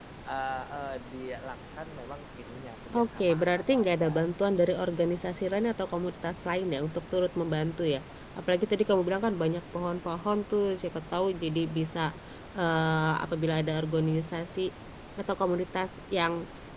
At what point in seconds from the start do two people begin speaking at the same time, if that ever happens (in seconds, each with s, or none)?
2.9 s